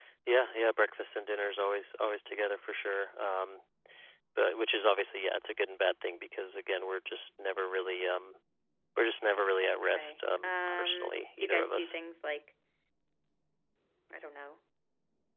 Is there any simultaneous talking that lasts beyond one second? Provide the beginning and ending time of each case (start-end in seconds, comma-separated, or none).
9.6-12.0